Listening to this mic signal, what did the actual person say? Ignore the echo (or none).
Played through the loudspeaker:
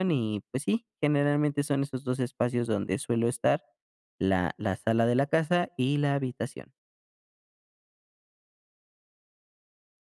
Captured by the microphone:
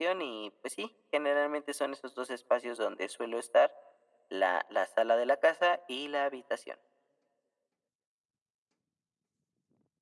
none